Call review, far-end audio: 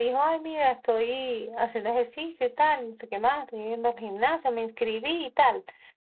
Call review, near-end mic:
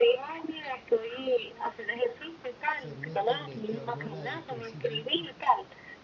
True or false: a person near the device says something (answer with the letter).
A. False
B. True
B